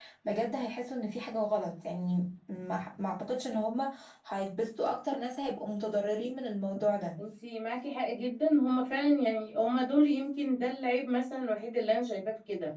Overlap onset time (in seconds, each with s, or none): none